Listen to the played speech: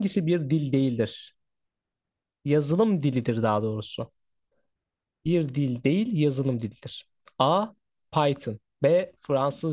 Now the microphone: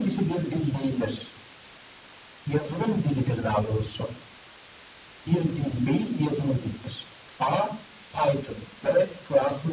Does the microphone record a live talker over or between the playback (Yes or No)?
No